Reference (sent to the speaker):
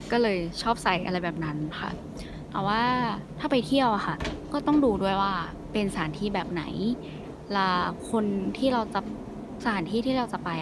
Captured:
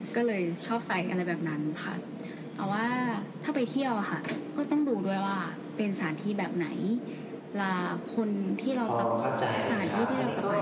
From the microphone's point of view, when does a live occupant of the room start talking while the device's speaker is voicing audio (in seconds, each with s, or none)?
8.8 s